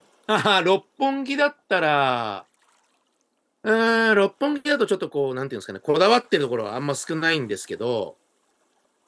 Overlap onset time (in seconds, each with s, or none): none